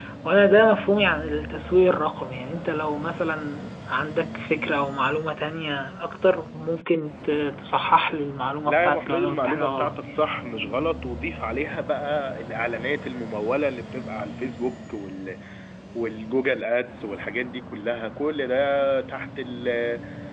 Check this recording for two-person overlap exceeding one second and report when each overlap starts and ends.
8.7-10.1

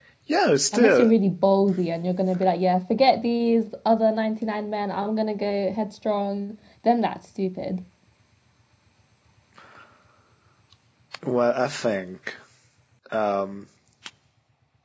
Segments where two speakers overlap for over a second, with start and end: none

